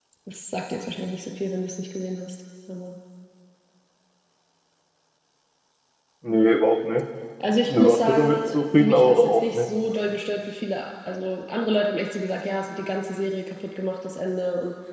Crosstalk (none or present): present